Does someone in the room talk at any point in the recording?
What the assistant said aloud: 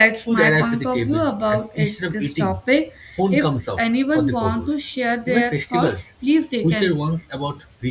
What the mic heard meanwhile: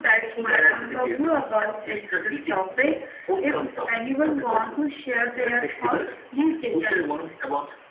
No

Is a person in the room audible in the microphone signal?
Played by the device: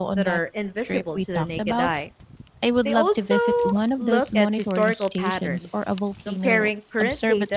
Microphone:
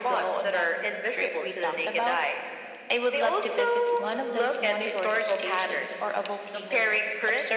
No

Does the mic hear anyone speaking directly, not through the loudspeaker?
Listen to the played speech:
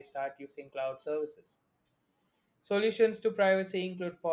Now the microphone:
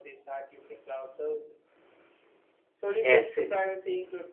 Yes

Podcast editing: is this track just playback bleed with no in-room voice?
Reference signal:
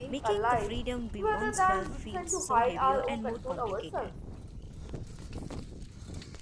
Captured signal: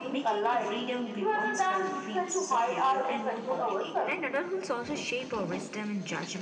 No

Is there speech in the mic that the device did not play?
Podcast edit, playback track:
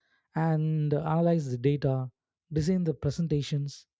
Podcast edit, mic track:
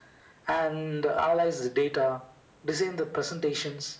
No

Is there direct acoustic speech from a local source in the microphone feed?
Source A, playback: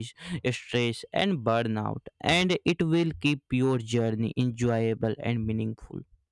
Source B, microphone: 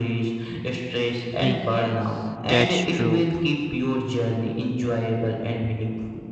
Yes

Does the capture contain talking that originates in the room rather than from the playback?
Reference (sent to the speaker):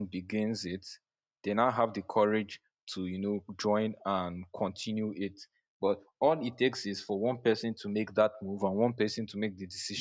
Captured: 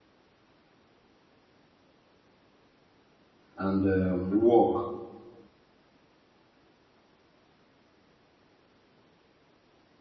Yes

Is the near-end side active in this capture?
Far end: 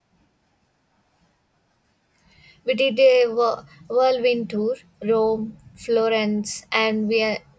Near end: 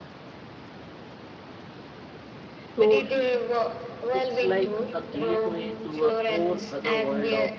Yes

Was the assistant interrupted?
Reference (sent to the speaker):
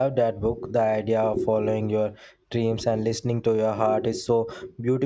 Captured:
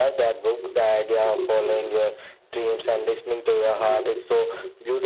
No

